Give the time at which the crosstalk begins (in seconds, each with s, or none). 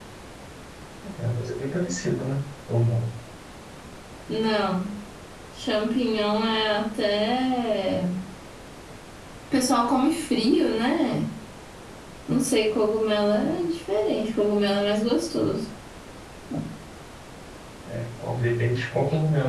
none